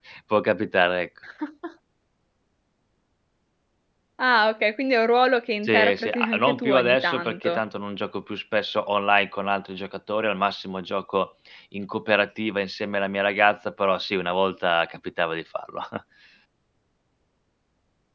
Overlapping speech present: Yes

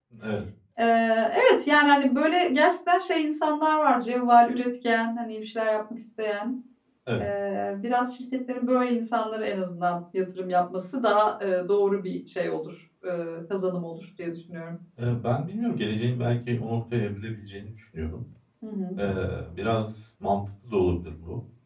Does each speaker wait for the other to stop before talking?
Yes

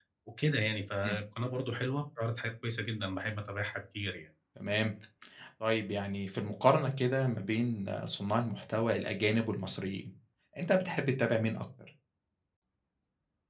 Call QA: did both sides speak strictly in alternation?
Yes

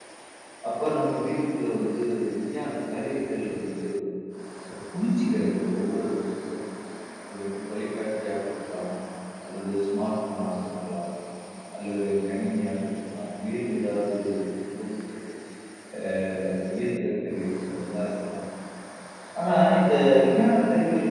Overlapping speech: No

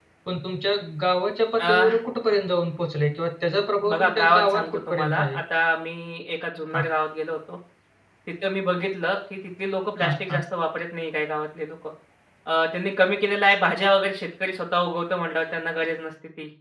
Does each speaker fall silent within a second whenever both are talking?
No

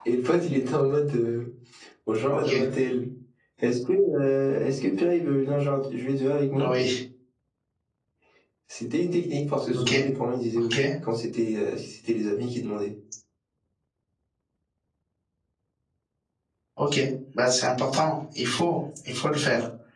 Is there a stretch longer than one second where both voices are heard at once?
No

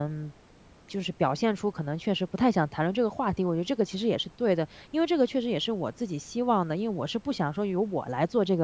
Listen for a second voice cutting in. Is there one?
No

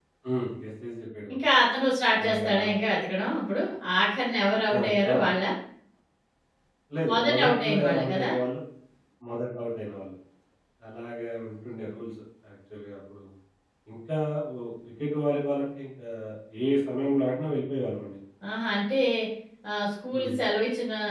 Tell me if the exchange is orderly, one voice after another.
No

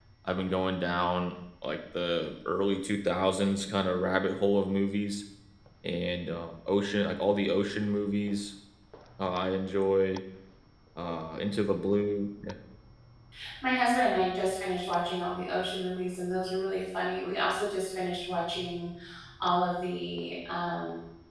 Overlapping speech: No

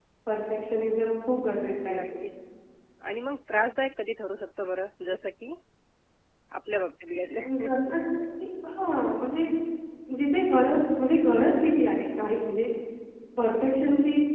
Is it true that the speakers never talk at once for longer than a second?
Yes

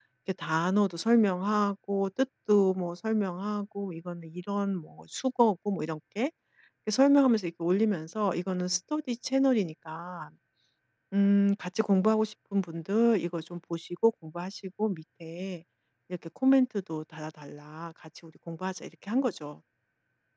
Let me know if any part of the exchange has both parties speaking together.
No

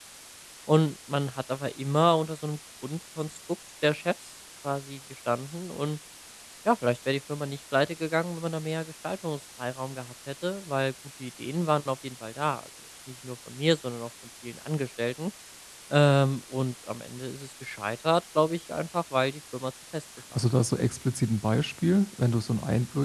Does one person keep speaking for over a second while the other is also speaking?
No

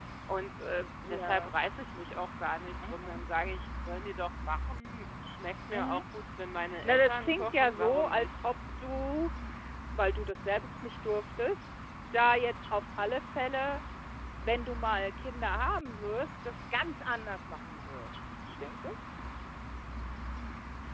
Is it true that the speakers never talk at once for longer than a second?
No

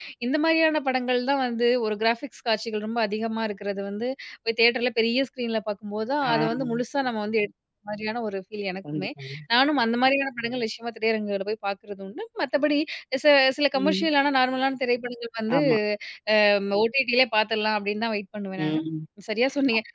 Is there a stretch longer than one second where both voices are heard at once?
No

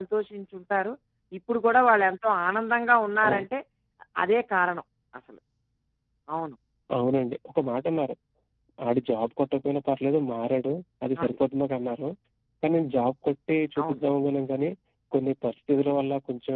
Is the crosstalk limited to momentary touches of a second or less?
Yes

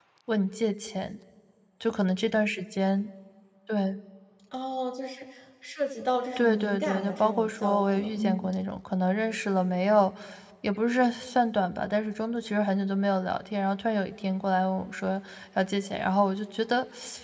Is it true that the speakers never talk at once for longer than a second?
No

